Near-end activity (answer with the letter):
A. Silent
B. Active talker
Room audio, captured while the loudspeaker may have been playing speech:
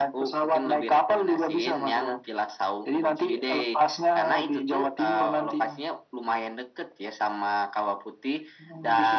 A